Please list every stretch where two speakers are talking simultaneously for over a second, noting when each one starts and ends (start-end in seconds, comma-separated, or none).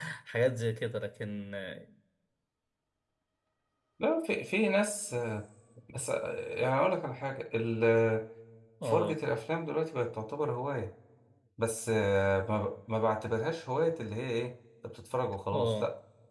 none